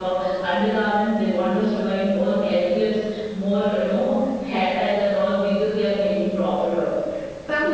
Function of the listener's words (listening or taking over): taking over